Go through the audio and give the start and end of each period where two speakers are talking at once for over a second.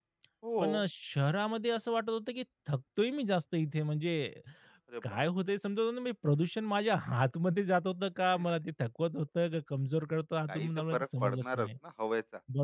10.5-11.7

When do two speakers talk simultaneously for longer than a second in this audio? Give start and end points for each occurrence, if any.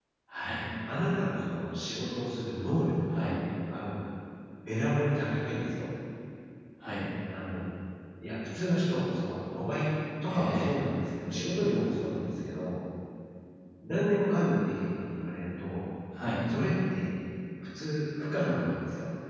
none

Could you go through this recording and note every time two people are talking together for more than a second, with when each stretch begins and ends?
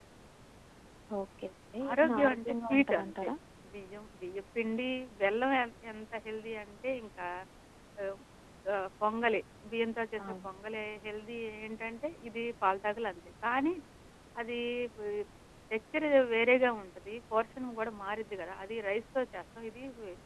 1.9-3.1

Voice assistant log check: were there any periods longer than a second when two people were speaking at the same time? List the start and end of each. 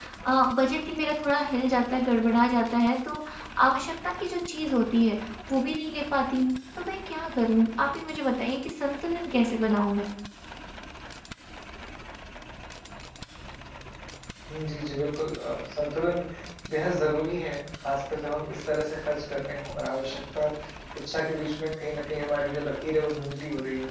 none

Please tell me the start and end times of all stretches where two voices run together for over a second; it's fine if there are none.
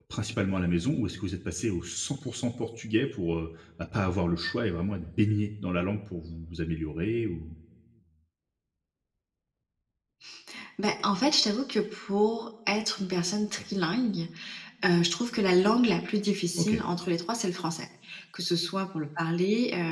none

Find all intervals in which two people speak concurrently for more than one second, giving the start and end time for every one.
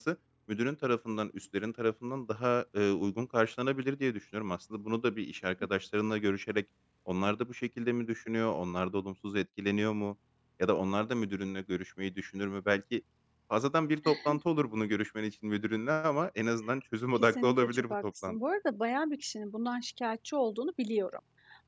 17.1-18.4

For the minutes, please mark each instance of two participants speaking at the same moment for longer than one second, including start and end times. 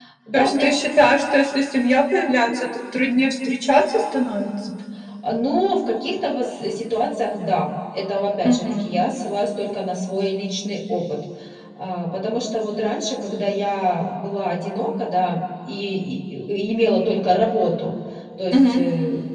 none

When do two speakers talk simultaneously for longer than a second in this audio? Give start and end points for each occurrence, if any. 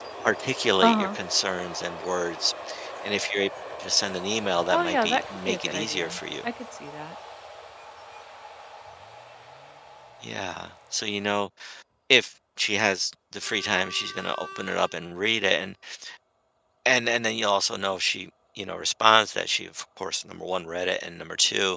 4.7-6.2

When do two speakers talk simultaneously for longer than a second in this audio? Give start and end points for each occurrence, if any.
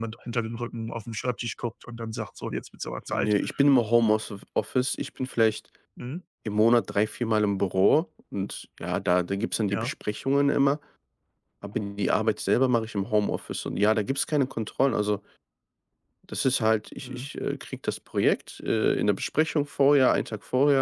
none

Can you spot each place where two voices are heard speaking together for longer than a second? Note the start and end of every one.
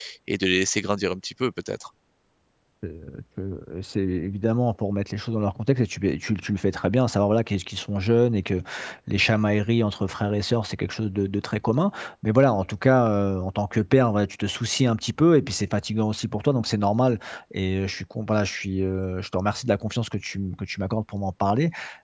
none

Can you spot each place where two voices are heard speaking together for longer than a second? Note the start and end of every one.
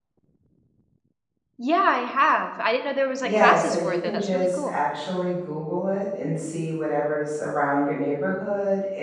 3.2-4.8

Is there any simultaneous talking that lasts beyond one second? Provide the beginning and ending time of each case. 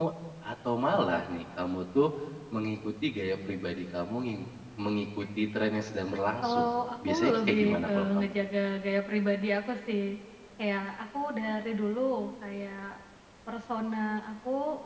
7.1-8.3

